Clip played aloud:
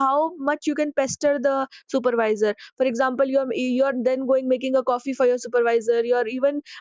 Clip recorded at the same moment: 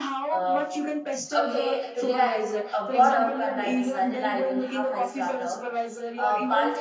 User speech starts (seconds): 0.3 s

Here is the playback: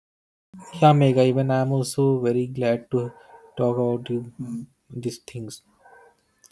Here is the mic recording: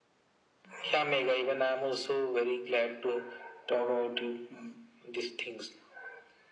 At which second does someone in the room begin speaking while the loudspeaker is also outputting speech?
none

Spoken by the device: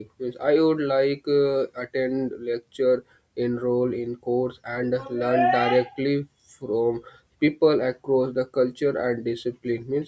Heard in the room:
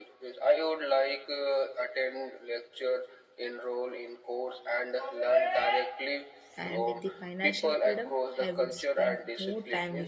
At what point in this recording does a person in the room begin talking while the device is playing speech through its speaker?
6.6 s

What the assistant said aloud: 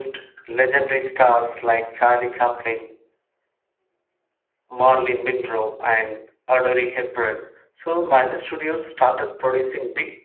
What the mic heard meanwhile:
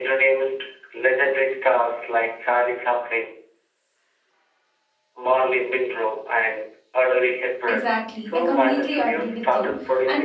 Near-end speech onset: 7.7 s

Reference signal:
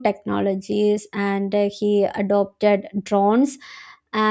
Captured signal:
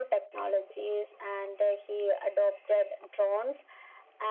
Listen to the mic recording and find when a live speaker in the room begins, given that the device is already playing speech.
none

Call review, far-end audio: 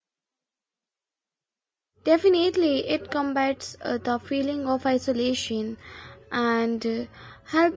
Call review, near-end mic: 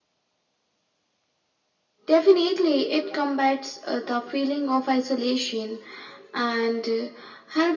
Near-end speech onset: none

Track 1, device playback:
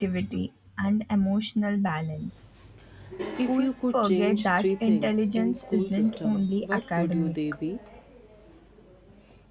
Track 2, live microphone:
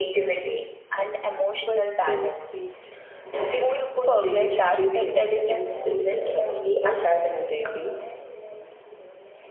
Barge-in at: 1.6 s

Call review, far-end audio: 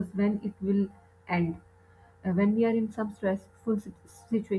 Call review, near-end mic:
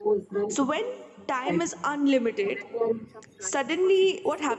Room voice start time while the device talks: 0.5 s

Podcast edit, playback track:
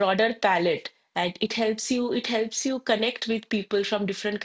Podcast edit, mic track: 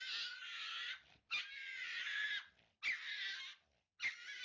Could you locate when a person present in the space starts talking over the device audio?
none

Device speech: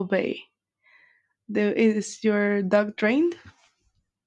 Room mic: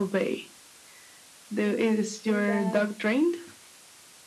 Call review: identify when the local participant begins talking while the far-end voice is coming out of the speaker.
1.6 s

